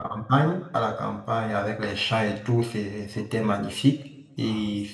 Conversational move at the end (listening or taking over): listening